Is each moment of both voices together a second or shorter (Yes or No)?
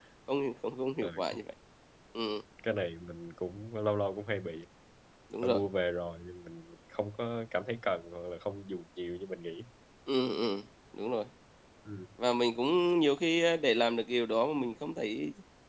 Yes